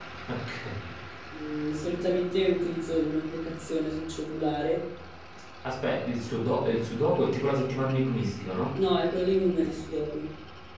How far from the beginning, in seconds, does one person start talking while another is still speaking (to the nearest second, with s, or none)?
none